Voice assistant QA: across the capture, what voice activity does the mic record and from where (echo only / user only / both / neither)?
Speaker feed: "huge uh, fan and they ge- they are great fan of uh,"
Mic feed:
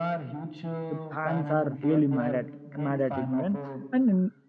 both